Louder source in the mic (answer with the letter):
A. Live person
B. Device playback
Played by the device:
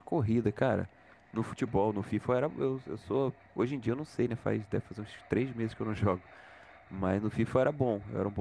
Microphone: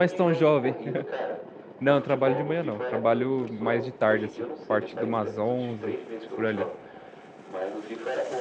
A